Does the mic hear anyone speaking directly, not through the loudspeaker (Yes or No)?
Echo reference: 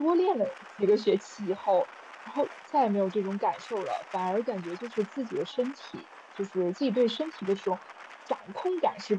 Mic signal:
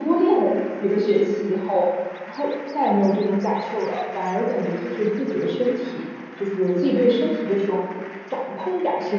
No